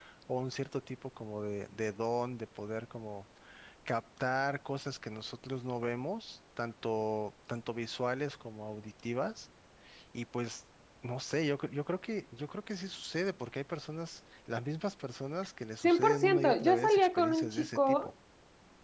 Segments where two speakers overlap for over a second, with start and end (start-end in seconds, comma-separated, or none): 15.8-18.1